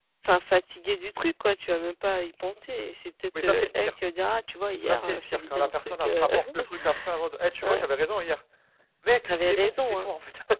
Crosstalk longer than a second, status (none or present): present